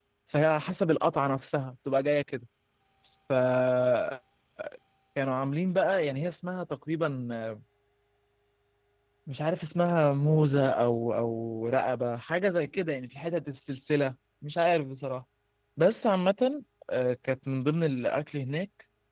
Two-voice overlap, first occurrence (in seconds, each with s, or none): none